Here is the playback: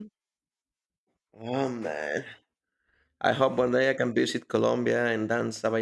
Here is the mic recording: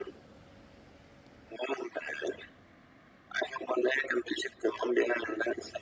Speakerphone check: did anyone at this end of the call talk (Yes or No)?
No